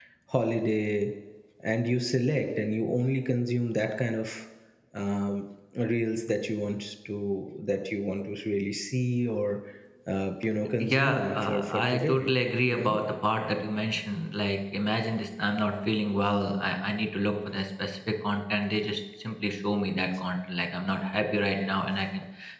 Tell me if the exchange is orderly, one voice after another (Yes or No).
No